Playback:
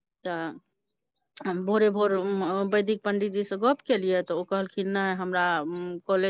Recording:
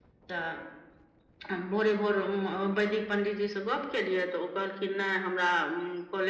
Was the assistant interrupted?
No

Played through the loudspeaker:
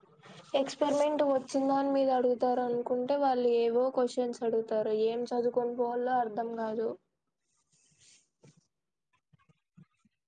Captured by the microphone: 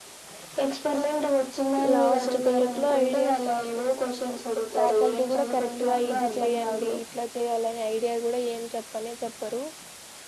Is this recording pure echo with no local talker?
No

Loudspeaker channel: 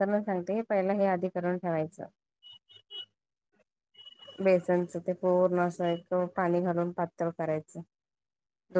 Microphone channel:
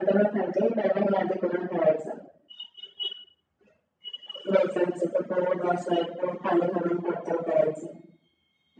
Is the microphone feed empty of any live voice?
Yes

